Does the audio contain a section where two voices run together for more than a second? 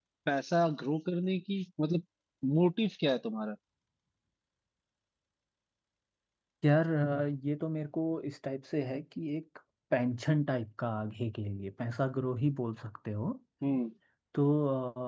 No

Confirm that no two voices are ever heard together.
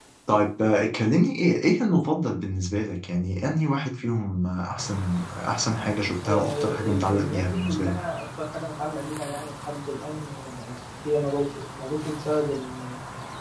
No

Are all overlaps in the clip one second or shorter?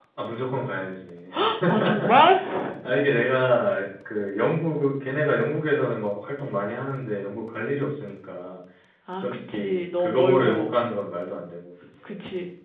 No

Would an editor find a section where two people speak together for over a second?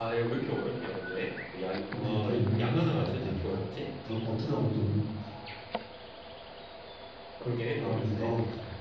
Yes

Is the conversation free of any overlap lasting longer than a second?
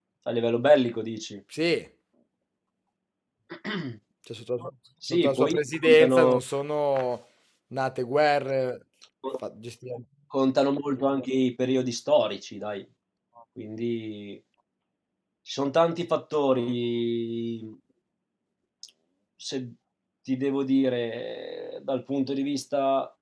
No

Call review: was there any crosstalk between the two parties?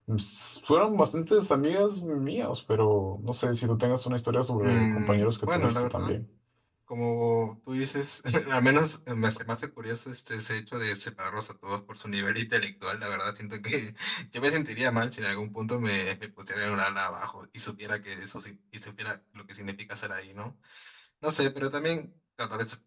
Yes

